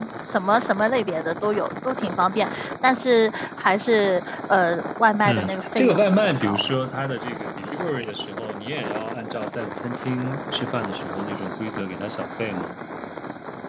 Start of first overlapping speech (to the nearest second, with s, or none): 5 s